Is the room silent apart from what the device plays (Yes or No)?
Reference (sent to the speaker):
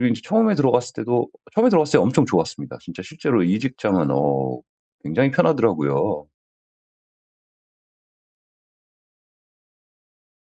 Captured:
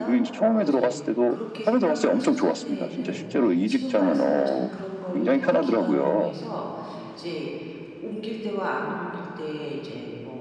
No